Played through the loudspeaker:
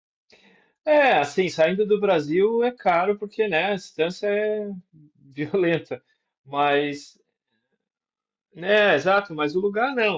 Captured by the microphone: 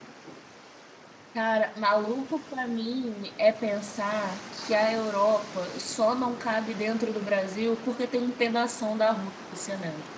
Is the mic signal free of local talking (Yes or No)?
No